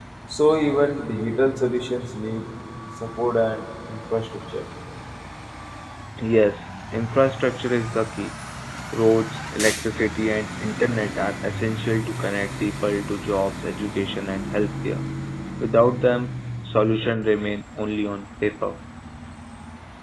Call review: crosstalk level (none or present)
none